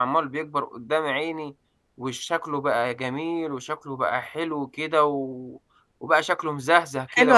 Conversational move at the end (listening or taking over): taking over